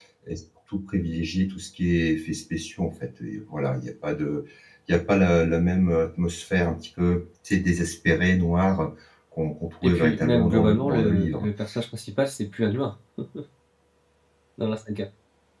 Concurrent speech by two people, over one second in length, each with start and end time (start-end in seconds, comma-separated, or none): 9.8-11.5